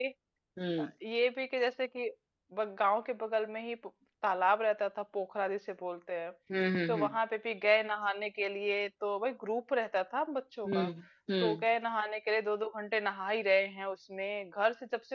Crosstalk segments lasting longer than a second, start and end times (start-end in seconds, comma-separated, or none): none